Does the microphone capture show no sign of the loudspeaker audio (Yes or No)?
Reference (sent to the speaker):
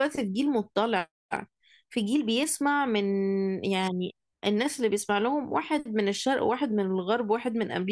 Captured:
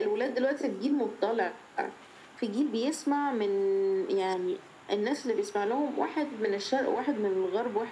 No